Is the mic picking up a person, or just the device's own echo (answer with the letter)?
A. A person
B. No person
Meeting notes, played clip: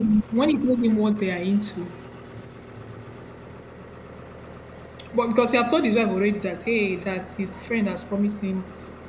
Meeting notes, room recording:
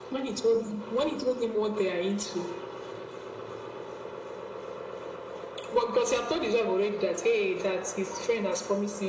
B